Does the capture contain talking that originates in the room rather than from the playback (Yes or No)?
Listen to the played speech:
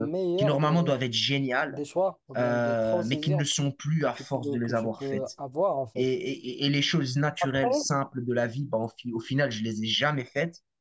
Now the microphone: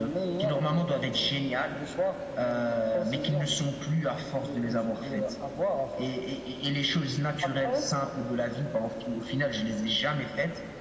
No